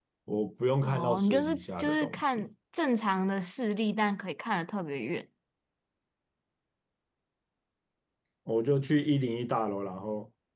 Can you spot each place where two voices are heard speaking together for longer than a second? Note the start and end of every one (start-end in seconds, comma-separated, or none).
0.8-2.5